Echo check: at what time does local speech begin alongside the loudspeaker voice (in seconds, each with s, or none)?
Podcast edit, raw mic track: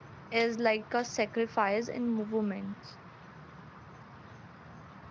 0.3 s